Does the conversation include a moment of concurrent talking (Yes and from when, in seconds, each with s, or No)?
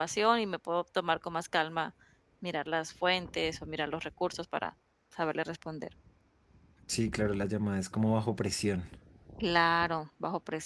No